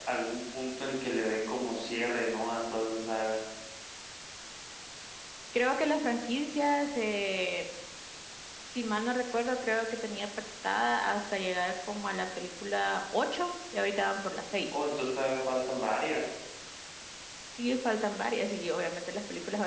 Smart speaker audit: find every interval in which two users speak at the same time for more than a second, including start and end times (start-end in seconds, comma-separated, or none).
none